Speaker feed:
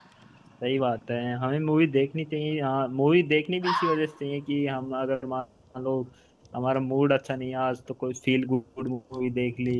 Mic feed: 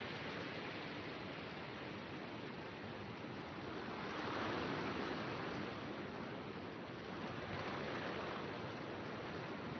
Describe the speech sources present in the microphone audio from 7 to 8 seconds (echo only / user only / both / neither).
neither